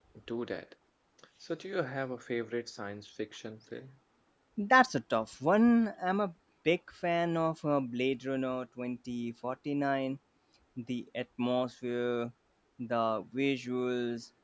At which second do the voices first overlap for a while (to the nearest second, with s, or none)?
none